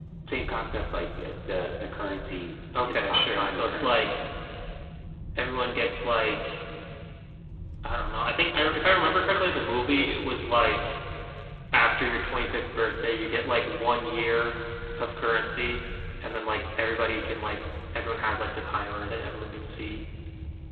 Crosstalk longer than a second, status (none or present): present